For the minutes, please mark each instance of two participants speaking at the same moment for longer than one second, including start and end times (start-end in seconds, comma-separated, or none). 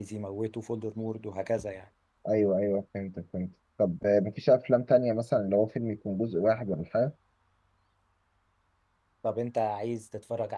none